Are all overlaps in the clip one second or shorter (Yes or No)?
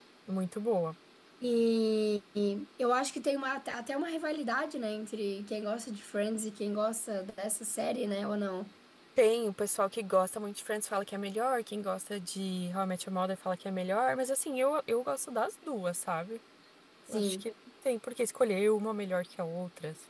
Yes